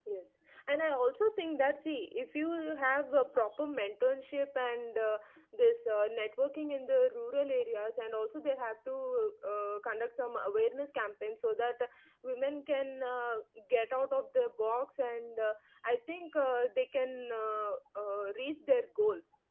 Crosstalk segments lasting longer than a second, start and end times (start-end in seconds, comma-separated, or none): none